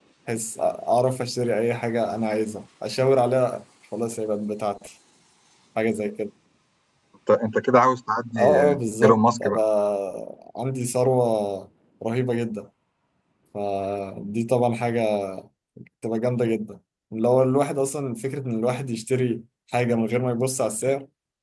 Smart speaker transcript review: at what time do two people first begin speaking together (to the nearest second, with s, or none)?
8 s